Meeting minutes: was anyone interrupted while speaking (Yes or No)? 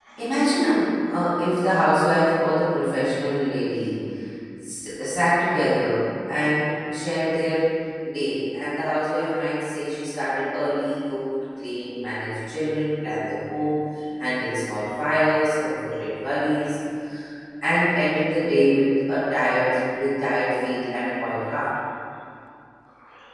No